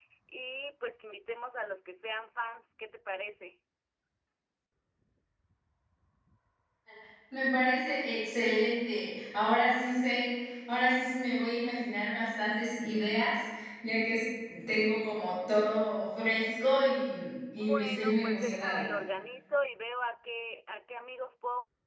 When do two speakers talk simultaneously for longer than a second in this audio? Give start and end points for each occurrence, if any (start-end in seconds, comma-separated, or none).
17.6-18.8